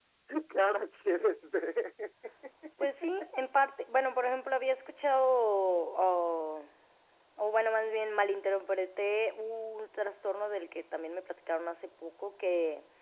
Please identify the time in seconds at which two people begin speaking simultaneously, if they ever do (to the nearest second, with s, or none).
none